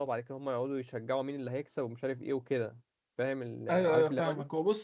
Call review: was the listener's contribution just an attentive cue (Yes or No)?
No